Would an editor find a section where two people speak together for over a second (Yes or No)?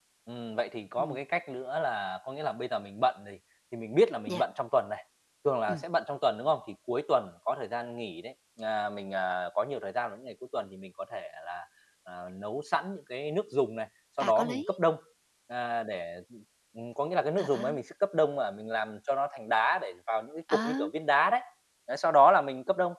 No